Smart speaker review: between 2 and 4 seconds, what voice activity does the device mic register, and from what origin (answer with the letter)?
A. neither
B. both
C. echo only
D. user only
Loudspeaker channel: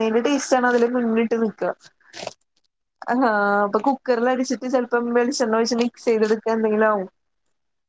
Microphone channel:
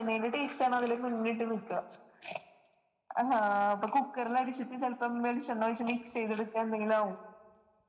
C